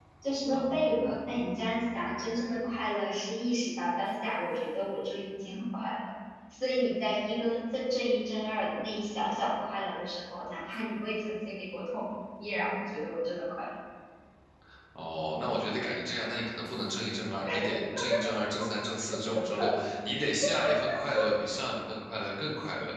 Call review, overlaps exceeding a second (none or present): none